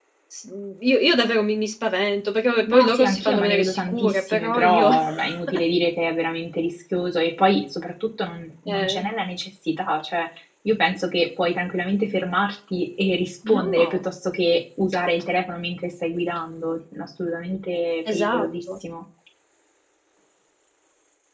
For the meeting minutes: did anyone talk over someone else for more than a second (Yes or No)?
Yes